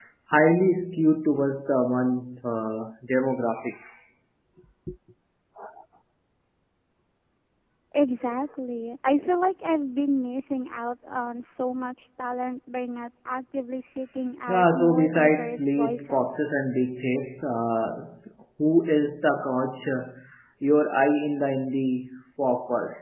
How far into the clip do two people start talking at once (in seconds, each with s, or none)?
14.5 s